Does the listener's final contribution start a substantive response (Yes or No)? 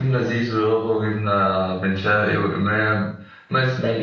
Yes